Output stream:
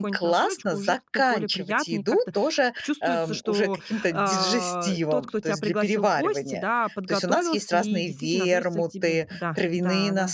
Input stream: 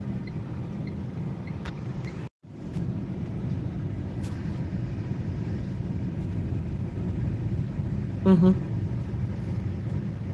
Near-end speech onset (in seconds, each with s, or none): 8.2 s